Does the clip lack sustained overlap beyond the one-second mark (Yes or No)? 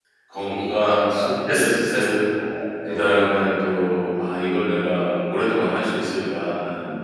No